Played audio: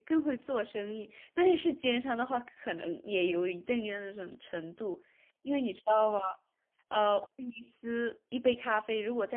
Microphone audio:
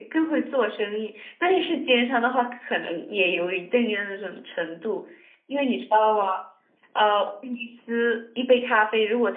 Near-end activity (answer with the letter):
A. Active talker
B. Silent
B